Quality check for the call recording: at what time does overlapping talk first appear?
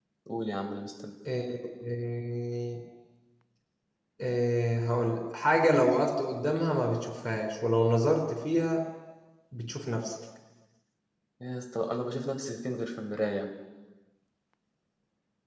none

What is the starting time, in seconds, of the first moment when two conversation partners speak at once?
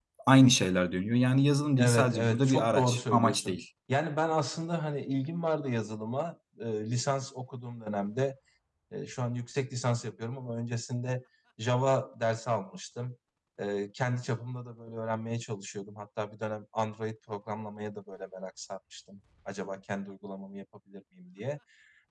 1.8 s

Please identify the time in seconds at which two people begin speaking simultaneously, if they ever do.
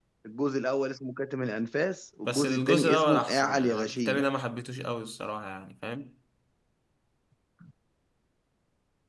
2.2 s

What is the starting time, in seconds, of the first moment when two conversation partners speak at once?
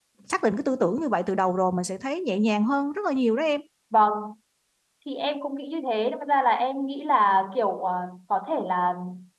none

